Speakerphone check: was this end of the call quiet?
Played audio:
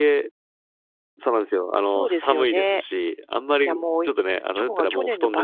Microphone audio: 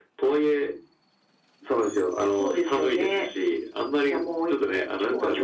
Yes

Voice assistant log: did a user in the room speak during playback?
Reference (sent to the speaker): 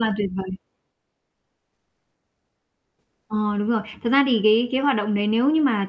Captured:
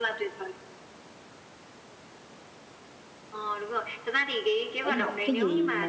Yes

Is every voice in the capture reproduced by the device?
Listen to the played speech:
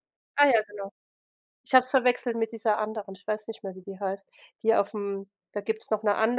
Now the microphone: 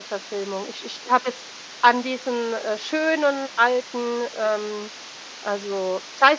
No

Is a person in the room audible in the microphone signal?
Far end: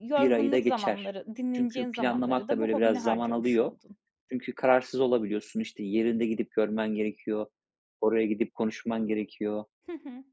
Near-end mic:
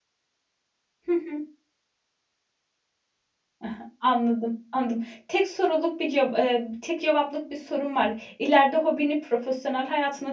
Yes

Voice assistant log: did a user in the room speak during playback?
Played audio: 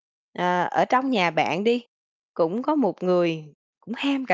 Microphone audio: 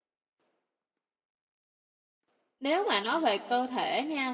Yes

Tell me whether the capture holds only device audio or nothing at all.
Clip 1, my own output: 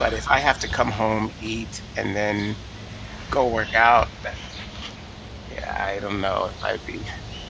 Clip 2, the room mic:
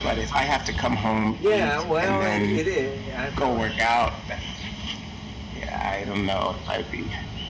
No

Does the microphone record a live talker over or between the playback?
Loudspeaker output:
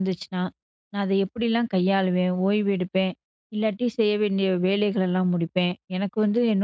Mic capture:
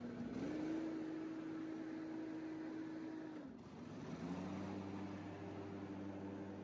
No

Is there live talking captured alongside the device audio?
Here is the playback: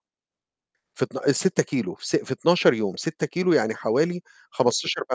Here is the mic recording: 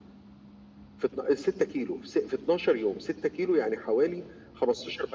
No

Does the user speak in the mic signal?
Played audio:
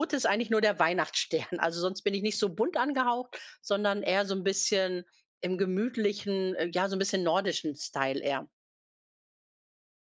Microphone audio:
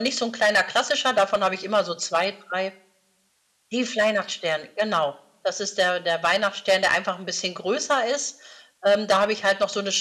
Yes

